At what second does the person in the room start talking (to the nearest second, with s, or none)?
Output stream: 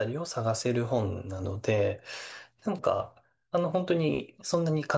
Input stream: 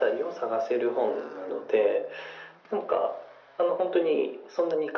none